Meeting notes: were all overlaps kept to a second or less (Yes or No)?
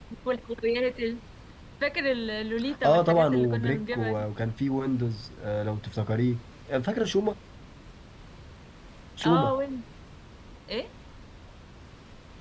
No